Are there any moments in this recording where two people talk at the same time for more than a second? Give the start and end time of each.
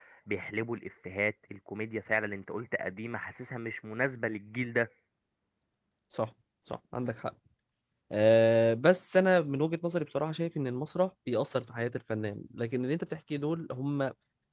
none

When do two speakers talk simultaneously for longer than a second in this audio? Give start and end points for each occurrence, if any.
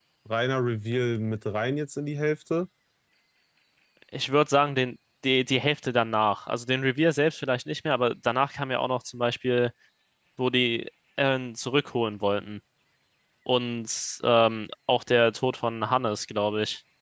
none

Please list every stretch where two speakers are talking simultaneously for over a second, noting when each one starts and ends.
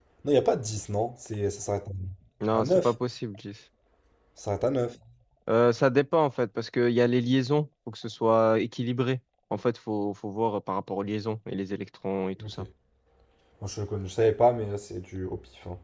none

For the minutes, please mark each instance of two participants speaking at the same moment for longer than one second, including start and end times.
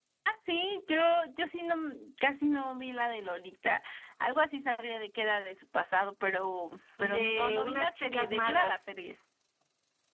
7.0-8.8

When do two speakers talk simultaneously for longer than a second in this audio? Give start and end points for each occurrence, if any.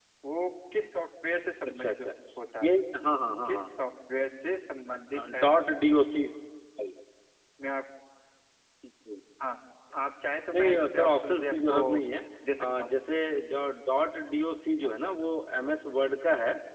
10.5-11.8

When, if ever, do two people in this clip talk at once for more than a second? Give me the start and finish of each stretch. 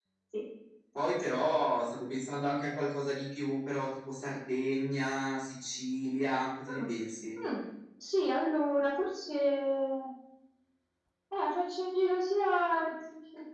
none

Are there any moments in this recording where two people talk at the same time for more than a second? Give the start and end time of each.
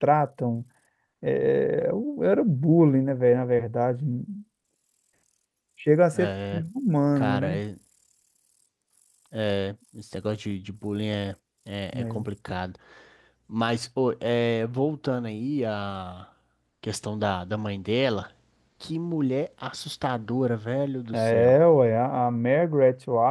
none

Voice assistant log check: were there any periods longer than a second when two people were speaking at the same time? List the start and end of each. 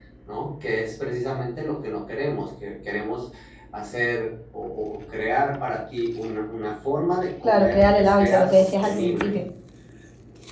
7.4-9.4

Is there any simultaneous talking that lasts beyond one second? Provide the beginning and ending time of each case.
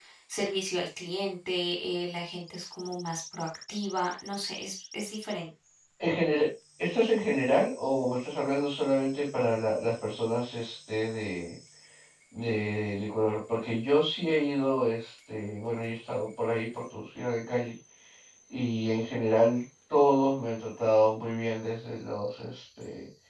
none

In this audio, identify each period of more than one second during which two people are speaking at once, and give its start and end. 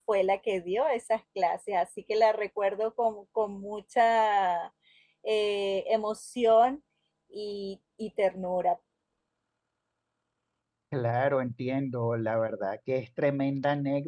none

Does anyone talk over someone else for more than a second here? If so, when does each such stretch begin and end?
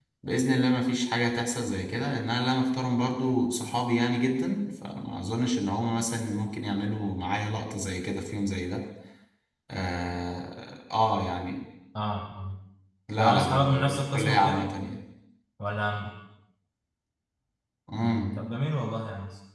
13.2-14.7

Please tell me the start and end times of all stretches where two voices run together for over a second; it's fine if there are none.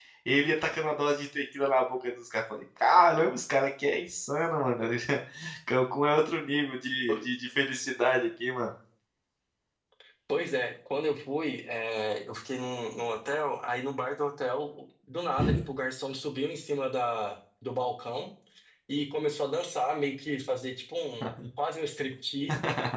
none

